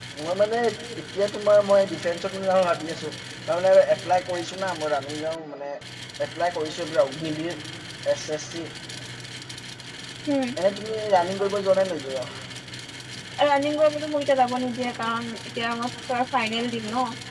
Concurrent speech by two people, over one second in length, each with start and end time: none

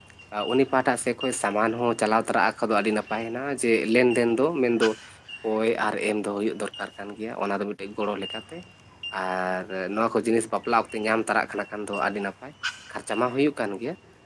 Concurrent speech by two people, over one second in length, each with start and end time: none

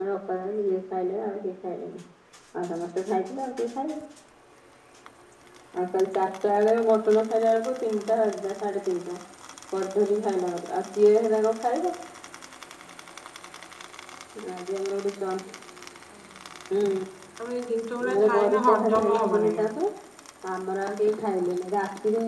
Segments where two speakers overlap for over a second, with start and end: 18.0-19.5

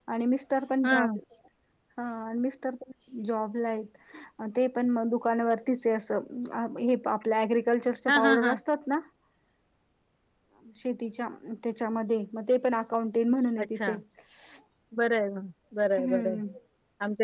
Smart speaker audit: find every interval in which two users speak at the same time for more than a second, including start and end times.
none

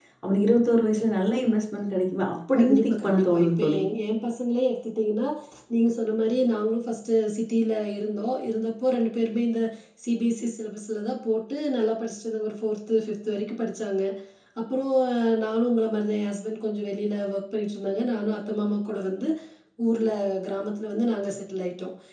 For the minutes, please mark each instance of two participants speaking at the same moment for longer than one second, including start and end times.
2.6-3.8

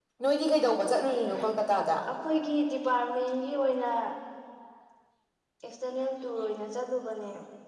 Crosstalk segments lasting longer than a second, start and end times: none

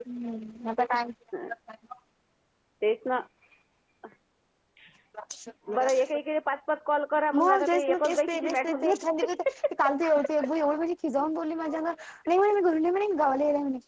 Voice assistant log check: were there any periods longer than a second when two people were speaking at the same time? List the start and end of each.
7.4-9.0

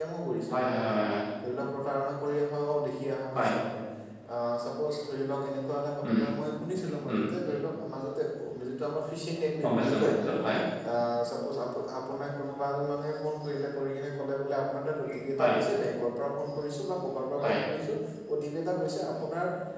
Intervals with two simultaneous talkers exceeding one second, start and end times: none

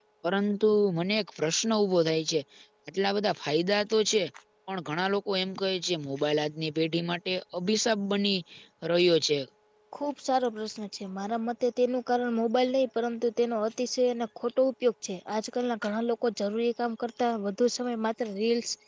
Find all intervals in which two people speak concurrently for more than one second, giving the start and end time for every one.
none

